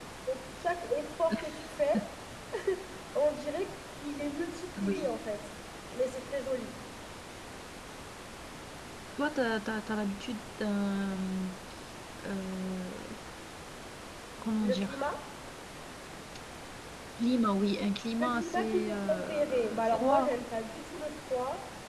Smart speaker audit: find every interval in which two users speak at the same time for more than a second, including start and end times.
18.2-20.4

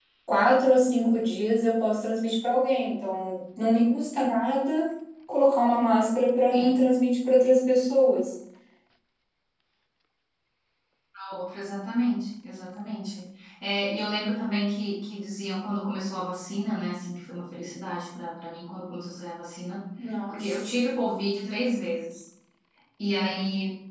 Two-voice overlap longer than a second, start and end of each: none

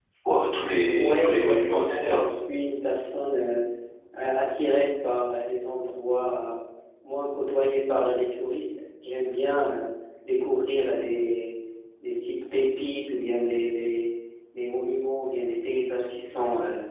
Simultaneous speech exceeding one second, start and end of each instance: 1.0-2.2

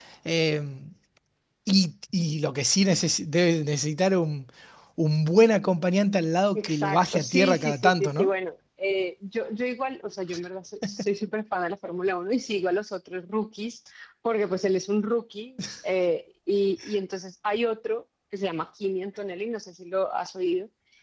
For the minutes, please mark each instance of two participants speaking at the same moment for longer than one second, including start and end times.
6.5-8.3

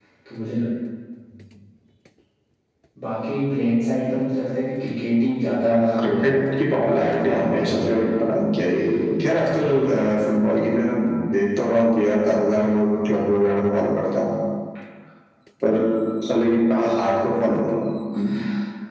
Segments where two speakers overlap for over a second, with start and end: 6.7-8.1

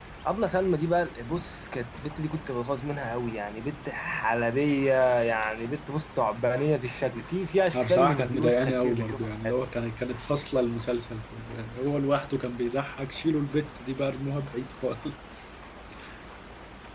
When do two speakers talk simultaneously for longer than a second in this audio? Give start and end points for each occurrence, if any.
7.7-9.5

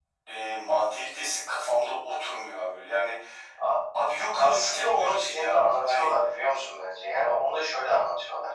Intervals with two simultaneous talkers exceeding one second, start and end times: 4.4-6.1

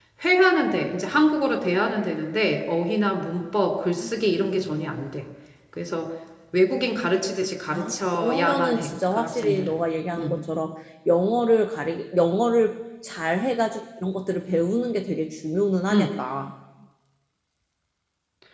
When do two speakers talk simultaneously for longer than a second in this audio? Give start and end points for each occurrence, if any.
7.7-9.7

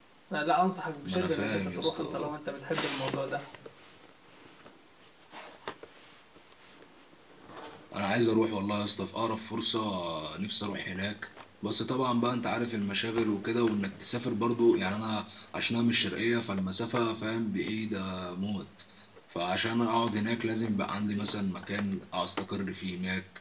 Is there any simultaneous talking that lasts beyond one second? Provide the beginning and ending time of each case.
1.0-2.3

